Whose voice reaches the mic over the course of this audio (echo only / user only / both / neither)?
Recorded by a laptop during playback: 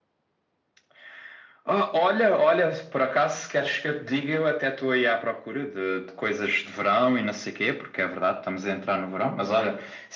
echo only